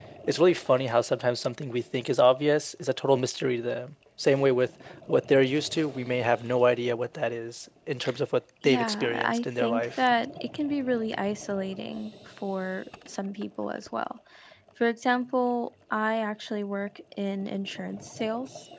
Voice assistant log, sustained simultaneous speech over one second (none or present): present